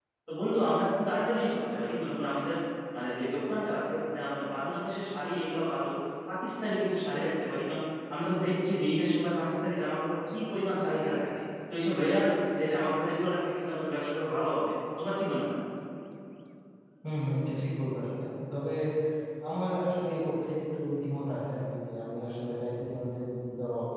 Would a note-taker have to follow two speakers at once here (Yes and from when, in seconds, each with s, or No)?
No